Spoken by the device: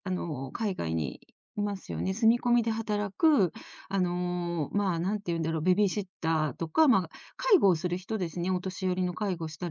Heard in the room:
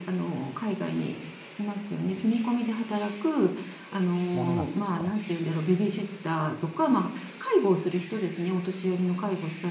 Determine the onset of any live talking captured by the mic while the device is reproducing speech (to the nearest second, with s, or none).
4 s